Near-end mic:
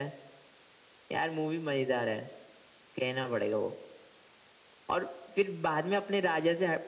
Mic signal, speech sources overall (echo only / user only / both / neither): echo only